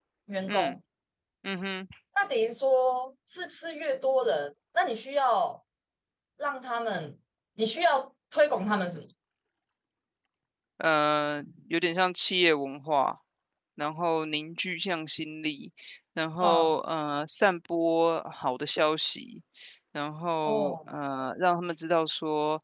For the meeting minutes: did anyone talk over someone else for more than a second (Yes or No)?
No